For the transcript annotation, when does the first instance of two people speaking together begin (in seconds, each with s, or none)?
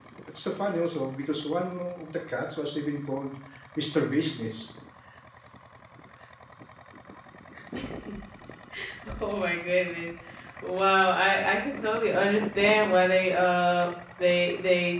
none